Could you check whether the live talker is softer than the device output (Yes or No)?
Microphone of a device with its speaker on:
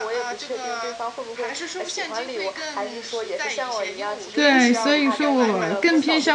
No